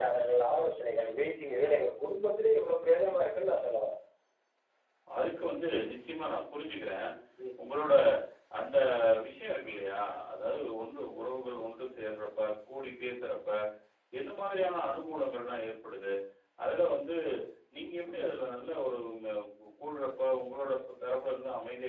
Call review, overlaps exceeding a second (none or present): none